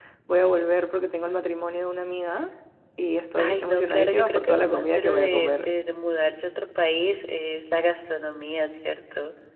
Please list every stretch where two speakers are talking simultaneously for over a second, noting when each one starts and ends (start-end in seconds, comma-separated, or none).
3.4-5.7